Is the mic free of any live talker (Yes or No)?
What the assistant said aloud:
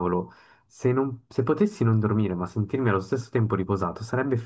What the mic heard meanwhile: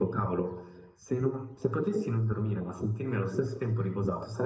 Yes